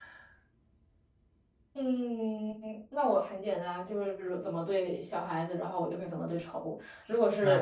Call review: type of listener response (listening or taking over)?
listening